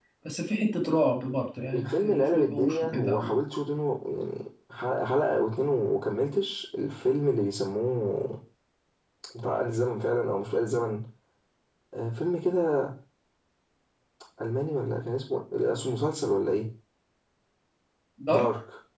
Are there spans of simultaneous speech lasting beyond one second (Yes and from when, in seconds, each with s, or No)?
Yes, from 1.7 s